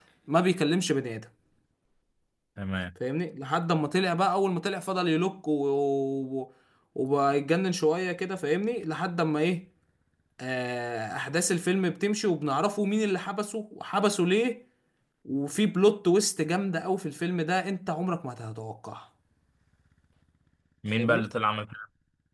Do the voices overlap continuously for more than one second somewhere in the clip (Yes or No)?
No